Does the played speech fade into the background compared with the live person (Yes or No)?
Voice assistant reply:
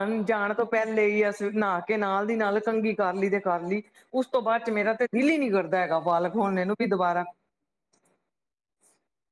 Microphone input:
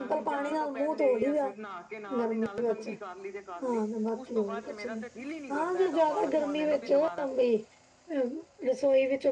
Yes